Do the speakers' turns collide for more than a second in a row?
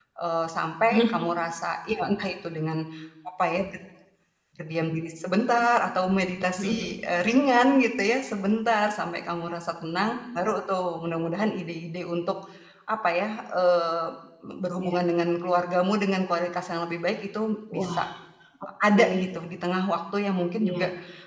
No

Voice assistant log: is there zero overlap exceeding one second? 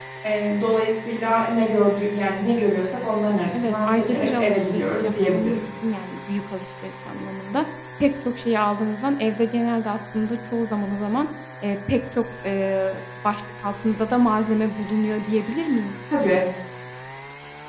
No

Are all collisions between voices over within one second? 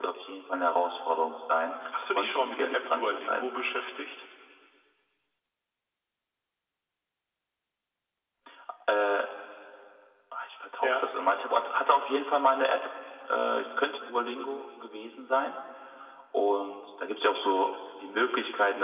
No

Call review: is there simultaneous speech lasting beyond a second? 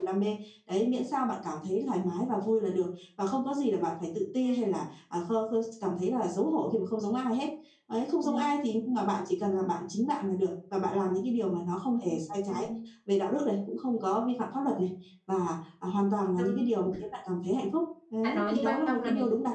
Yes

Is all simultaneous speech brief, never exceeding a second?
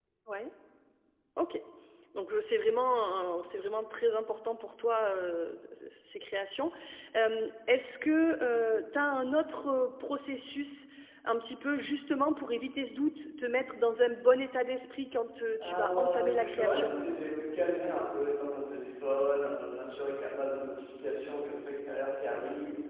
No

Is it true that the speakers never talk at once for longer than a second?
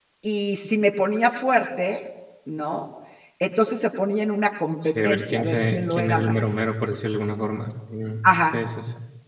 No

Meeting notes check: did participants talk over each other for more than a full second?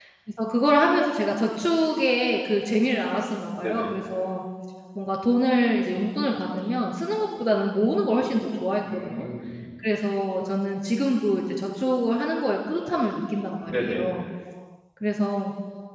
No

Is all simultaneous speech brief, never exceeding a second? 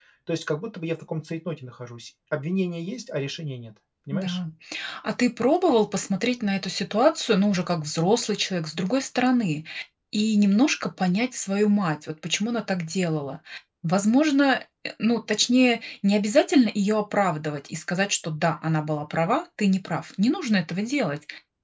Yes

